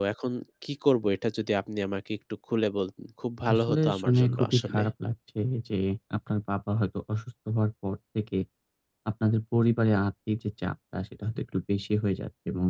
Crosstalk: present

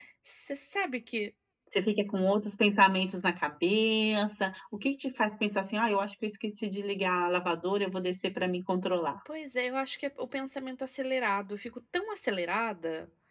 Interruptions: none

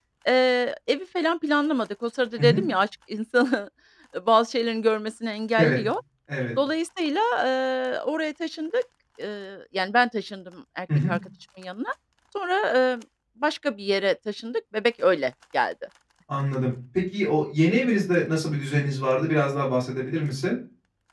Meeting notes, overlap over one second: none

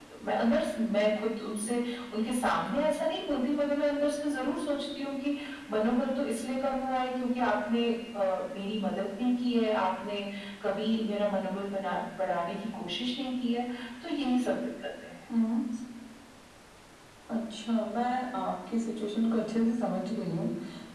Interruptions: none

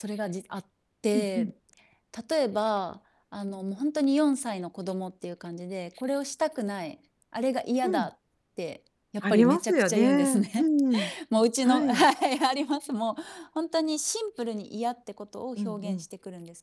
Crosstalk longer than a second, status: present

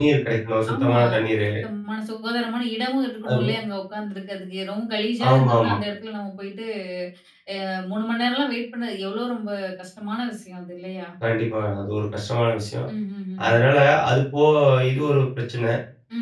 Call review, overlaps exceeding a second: none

